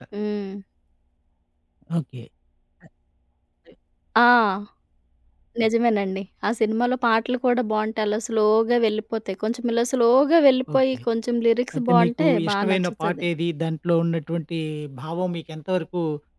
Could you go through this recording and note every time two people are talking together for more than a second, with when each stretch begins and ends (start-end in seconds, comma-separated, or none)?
11.8-13.2